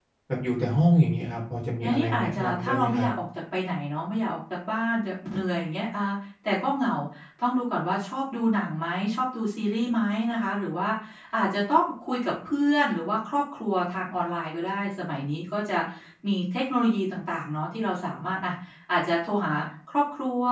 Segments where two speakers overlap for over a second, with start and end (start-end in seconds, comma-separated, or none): 1.8-3.1